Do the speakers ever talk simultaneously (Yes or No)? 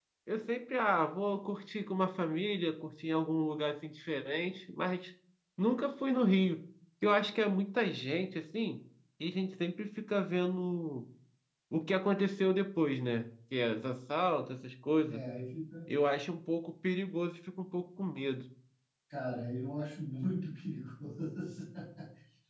No